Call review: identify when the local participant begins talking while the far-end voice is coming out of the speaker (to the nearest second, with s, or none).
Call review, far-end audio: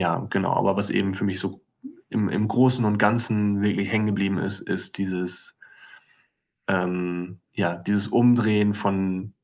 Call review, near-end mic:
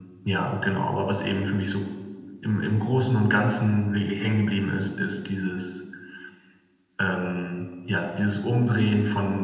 none